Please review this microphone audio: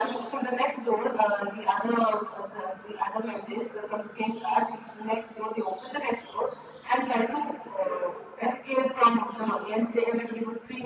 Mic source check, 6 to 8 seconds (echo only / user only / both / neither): echo only